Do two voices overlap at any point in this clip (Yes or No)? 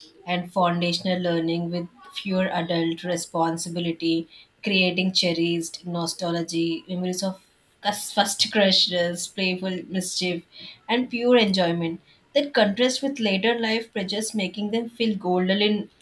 No